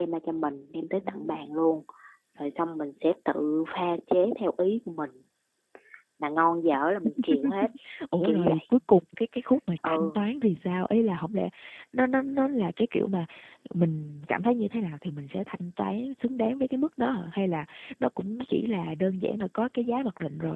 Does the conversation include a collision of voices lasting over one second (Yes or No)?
No